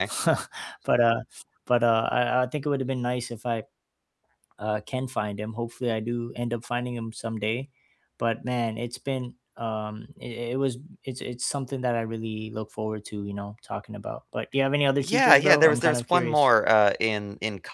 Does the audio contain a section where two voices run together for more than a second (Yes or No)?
Yes